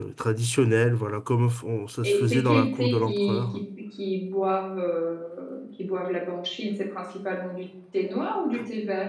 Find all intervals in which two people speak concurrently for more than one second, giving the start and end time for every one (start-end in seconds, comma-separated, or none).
2.0-3.6